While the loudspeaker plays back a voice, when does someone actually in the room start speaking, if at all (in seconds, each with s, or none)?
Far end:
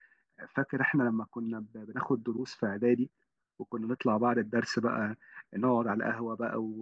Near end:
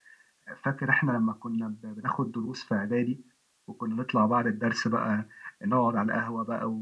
none